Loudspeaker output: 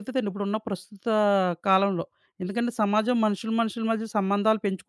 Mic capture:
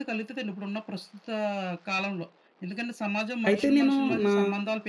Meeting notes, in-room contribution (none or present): present